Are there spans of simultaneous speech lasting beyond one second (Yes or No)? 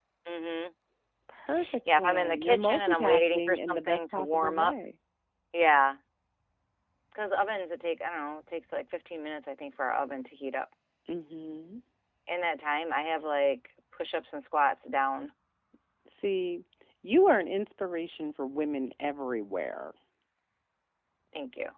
Yes